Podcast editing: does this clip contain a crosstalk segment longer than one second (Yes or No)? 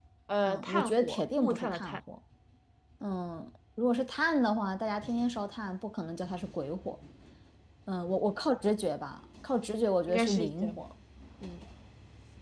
Yes